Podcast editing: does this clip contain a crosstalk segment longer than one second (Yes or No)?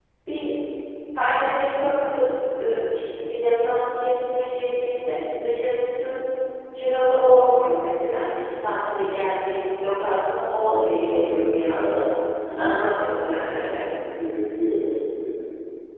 Yes